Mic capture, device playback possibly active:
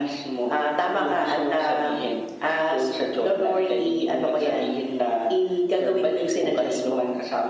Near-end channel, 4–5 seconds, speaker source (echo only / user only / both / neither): echo only